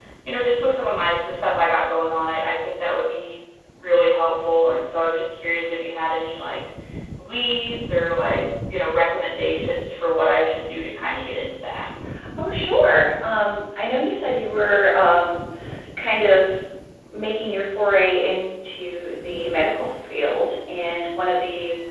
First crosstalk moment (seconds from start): none

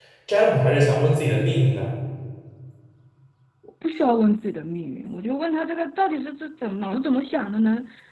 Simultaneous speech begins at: none

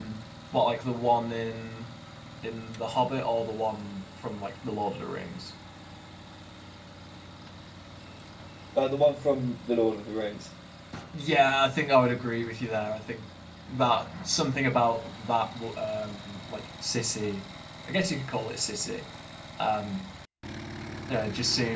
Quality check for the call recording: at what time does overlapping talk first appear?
none

